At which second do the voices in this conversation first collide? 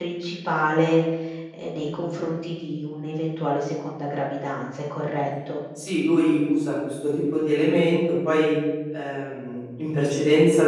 none

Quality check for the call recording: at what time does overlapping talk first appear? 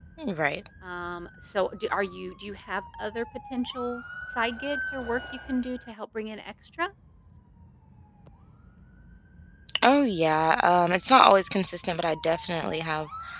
none

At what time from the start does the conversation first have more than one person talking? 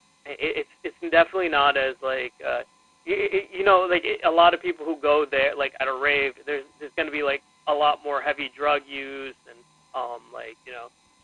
none

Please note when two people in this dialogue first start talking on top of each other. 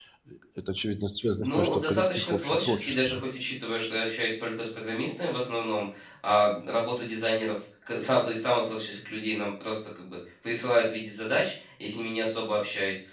1 s

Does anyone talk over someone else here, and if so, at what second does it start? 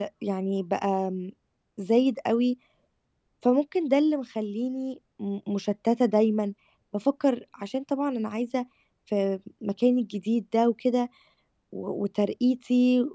none

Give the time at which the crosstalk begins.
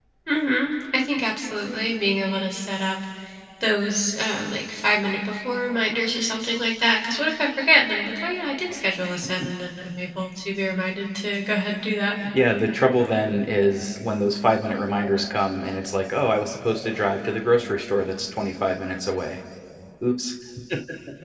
none

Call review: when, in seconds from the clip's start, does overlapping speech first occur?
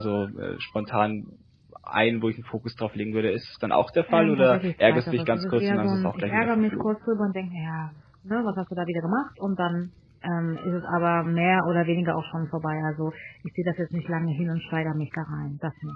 4 s

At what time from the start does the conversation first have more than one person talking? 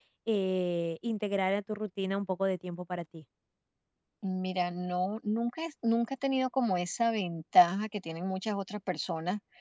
none

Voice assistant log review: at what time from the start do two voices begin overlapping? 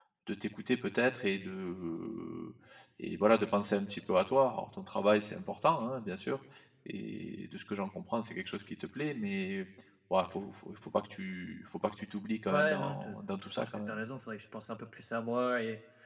13 s

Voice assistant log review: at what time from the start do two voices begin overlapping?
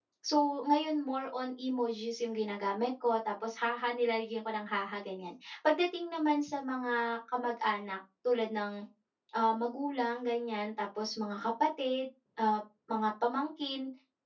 none

